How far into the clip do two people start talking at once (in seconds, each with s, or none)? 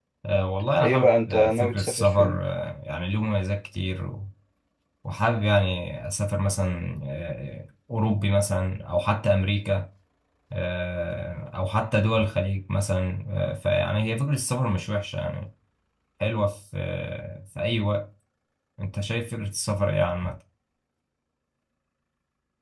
0.8 s